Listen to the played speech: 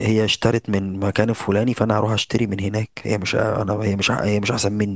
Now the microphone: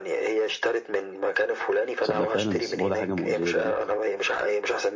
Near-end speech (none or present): present